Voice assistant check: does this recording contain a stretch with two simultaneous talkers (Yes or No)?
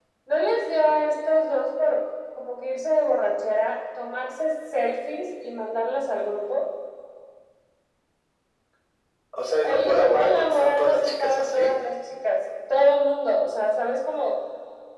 Yes